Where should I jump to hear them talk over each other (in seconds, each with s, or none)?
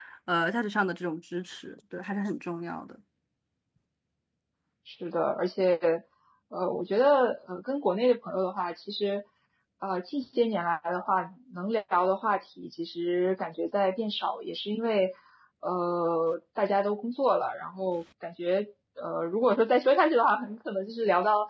none